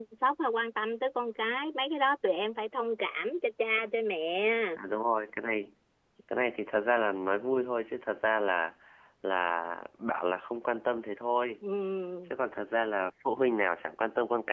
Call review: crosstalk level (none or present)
none